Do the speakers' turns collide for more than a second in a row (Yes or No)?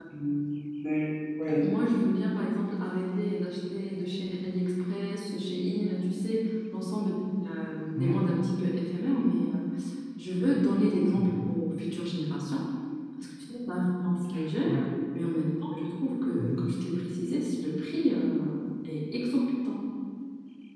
No